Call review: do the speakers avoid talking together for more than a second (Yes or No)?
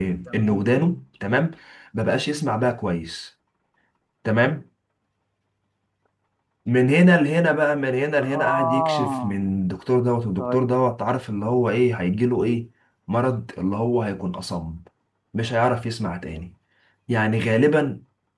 No